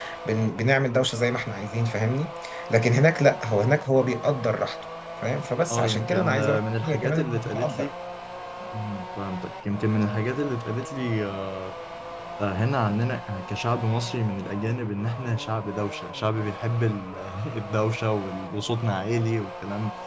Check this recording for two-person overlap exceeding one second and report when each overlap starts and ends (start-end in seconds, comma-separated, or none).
5.7-7.9